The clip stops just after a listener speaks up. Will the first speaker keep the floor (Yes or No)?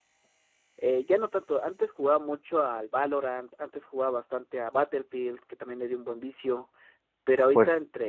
Yes